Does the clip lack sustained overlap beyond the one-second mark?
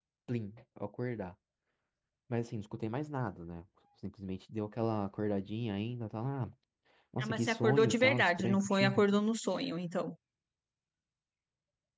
No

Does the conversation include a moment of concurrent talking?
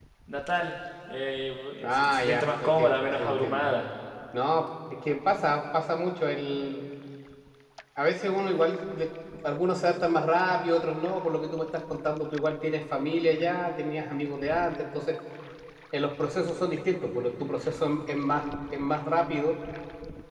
Yes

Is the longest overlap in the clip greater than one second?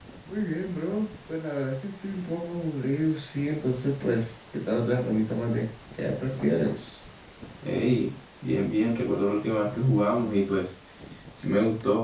No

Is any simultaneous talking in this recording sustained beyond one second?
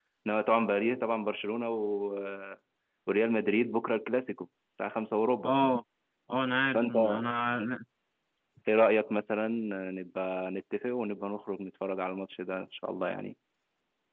No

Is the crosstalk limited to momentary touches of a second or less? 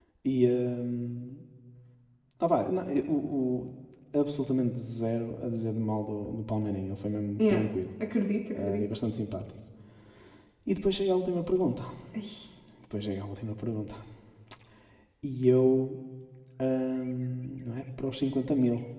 Yes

